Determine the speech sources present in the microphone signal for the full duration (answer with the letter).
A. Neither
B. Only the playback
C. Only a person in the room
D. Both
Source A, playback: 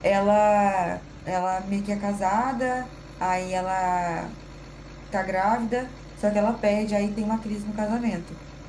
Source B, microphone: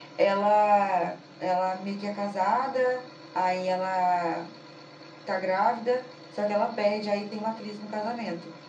B